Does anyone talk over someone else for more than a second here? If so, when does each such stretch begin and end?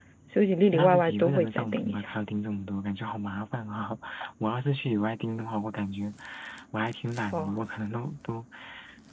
0.7-2.1

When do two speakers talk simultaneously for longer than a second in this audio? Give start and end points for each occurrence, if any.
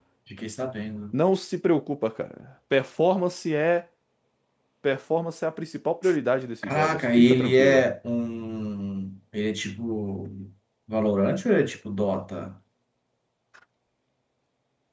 6.6-7.8

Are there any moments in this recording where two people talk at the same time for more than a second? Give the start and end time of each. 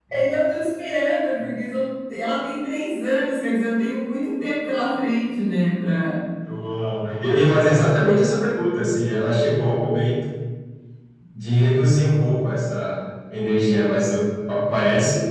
none

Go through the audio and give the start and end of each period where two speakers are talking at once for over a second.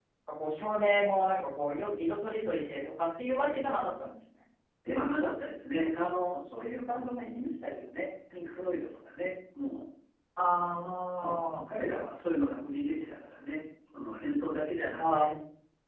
none

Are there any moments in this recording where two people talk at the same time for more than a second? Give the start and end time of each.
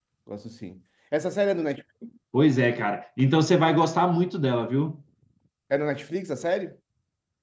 none

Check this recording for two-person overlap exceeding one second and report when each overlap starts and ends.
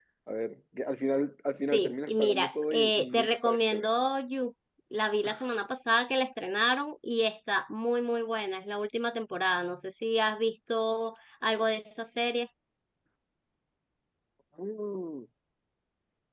1.7-3.9

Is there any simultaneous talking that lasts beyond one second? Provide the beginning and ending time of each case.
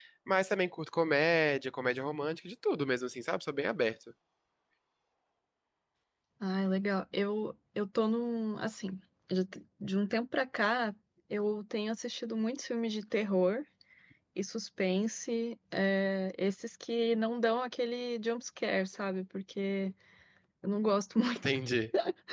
none

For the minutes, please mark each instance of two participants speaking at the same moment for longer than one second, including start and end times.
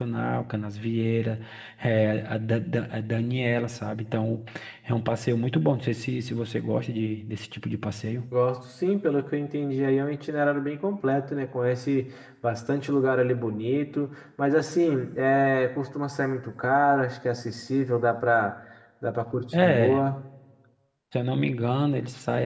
none

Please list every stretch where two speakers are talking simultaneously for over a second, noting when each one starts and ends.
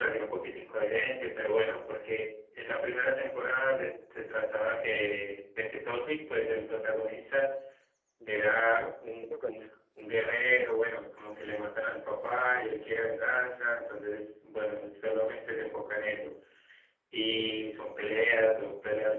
8.2-9.6

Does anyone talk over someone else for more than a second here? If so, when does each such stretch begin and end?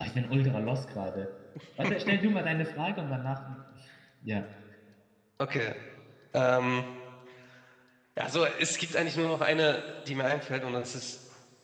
none

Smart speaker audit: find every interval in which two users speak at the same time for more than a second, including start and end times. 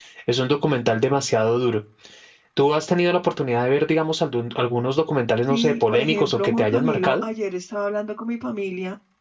5.5-7.2

